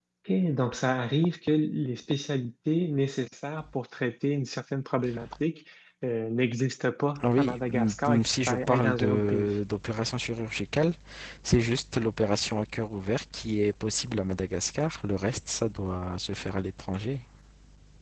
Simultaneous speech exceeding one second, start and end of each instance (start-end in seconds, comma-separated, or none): 7.2-9.5